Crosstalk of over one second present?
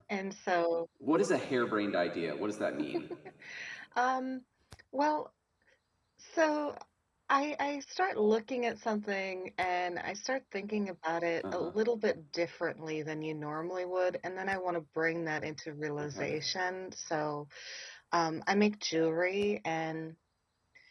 No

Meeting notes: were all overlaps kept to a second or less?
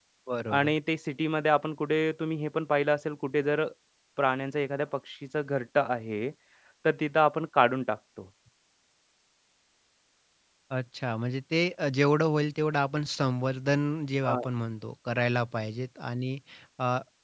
Yes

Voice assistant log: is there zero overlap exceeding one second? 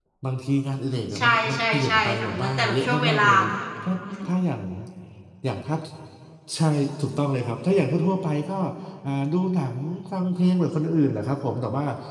No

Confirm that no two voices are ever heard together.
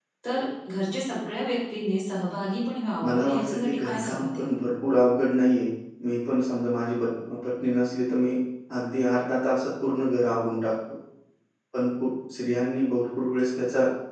No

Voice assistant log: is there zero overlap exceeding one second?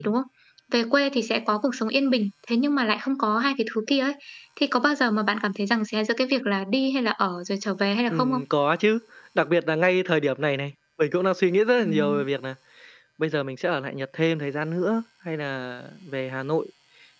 Yes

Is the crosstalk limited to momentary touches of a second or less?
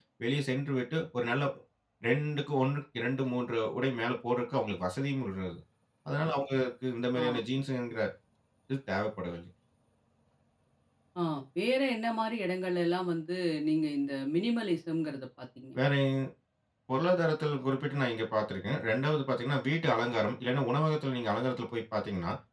Yes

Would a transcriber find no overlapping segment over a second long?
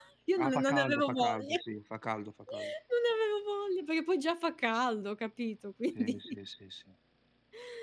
No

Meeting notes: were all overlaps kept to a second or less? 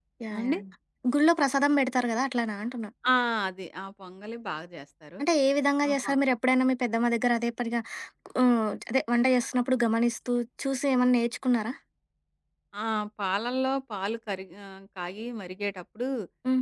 Yes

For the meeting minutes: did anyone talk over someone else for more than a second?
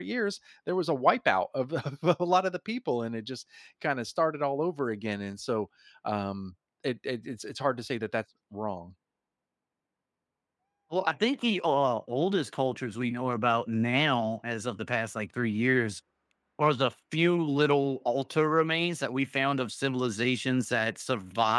No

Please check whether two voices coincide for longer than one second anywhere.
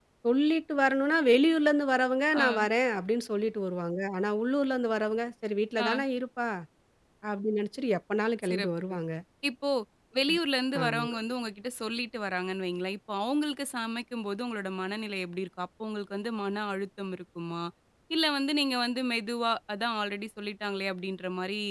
No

